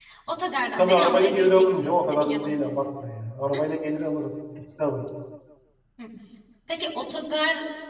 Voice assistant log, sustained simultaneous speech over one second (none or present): present